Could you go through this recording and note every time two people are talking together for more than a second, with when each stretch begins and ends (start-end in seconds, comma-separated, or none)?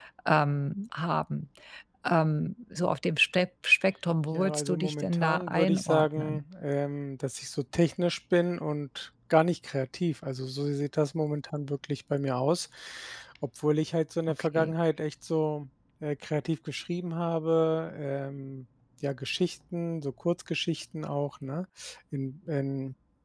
4.3-6.4